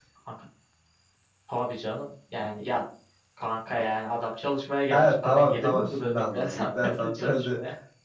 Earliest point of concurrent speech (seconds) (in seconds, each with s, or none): 4.9 s